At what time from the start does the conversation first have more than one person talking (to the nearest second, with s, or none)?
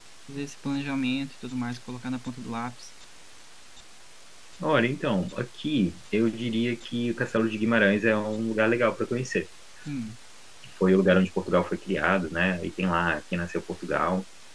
none